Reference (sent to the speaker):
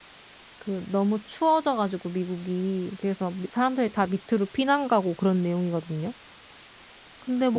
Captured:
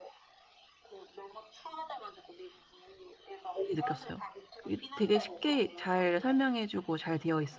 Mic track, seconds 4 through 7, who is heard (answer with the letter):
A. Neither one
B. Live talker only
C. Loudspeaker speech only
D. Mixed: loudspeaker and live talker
D